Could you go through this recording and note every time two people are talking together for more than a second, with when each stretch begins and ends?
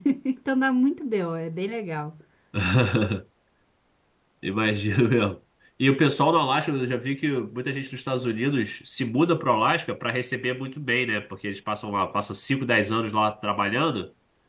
none

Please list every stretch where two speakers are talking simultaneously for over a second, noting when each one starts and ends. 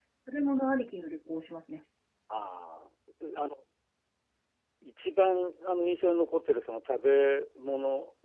none

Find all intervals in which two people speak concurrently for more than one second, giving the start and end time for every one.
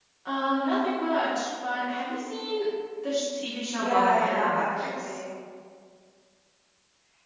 3.8-5.2

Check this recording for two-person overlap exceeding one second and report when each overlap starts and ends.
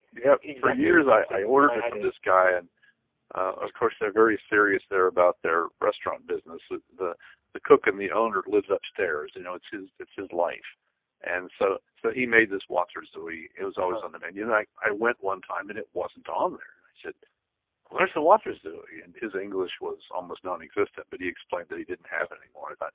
0.6-2.1

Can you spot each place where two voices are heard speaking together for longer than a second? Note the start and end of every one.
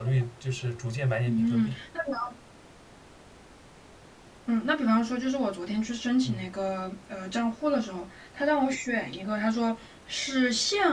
none

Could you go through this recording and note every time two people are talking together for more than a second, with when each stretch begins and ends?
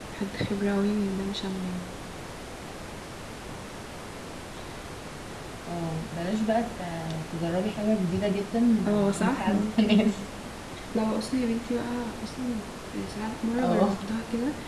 8.9-10.1

